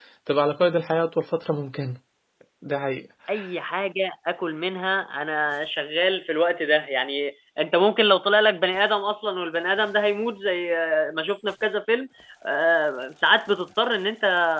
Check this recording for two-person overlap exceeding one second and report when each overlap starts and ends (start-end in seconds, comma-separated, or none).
none